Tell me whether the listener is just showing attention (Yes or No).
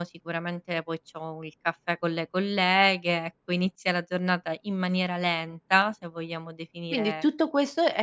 No